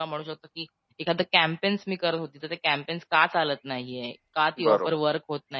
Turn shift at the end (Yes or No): No